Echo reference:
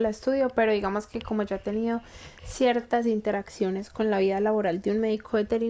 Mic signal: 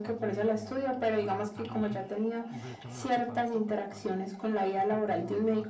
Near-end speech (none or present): present